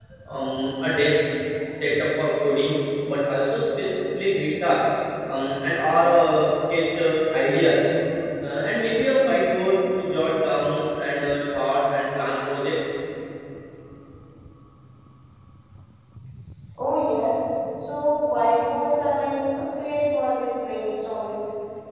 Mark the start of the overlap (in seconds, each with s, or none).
none